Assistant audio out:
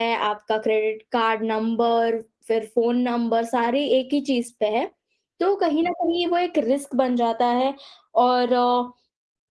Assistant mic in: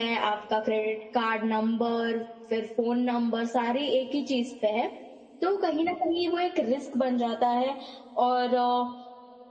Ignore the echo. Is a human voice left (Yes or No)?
No